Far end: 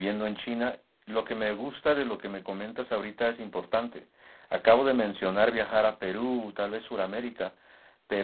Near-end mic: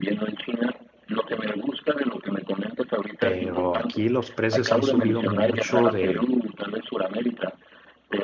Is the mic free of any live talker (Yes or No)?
No